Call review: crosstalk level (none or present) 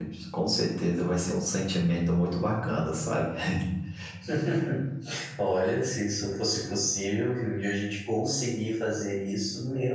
none